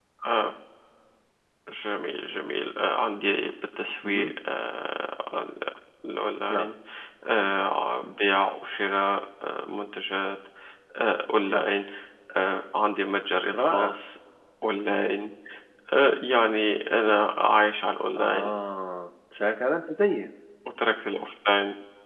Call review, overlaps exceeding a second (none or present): none